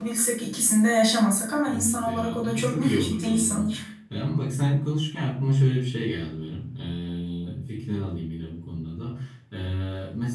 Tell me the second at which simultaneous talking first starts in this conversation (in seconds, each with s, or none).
1.7 s